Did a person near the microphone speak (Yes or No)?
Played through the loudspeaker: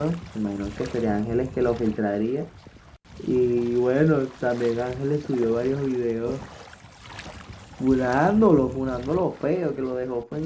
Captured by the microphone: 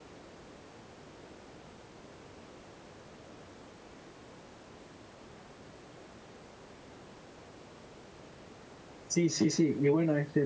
Yes